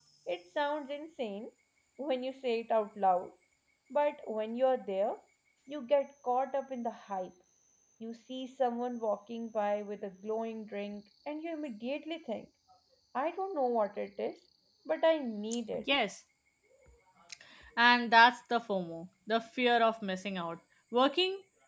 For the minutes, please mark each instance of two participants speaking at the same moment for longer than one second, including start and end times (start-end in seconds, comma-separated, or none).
none